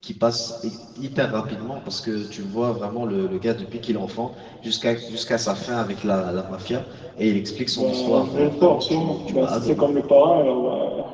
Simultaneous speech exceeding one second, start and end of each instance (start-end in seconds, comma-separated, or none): 7.7-9.8